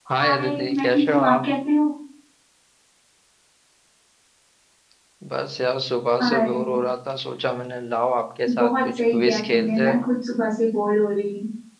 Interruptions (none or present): present